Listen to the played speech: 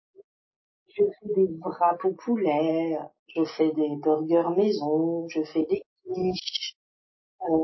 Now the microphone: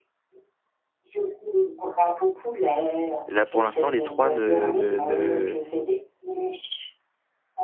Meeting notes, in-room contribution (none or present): present